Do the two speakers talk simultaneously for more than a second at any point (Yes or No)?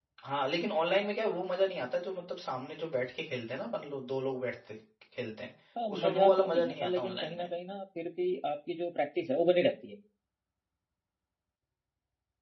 Yes